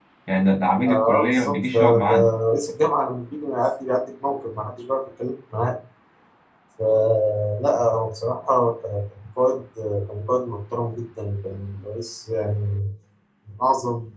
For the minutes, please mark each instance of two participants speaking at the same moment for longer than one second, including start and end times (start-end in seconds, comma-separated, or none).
0.9-2.1